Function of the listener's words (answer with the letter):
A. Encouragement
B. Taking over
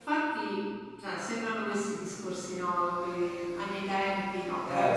A